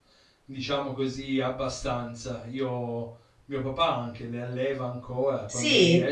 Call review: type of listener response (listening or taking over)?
listening